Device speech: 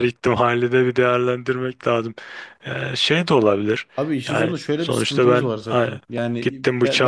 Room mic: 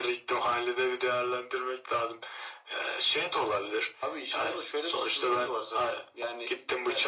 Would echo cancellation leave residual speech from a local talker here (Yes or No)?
No